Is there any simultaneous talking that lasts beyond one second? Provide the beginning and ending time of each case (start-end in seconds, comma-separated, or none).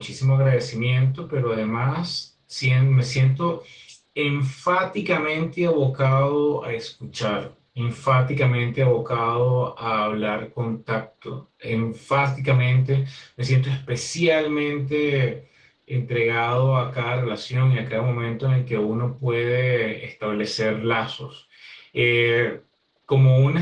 none